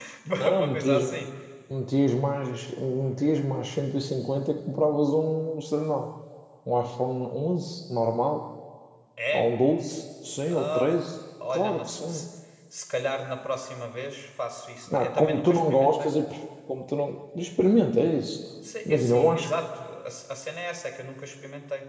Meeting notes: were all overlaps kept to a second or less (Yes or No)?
No